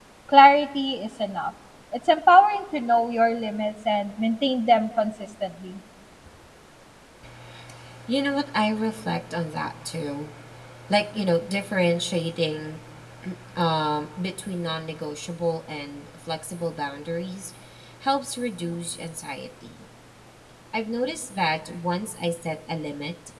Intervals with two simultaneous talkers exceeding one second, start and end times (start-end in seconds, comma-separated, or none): none